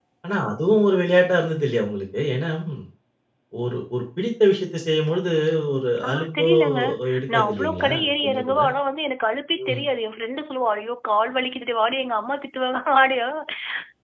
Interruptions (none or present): present